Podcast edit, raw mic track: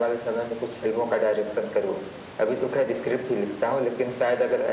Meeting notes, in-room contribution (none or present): none